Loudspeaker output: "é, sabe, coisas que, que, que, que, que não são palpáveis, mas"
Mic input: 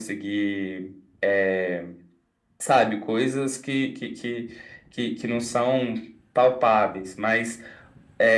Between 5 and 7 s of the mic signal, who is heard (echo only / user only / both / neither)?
echo only